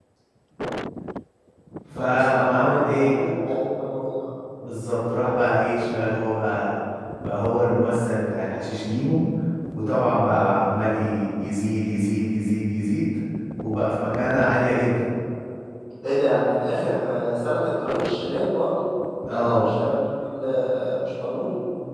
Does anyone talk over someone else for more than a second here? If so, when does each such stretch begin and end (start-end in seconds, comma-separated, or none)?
2.0-3.2